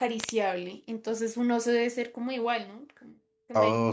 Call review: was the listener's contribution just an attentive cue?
No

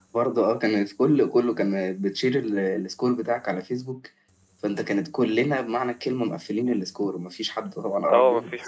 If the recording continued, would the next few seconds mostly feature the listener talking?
Yes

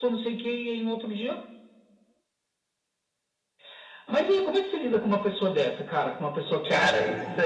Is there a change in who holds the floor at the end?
Yes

